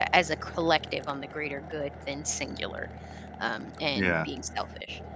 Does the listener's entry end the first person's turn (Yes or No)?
No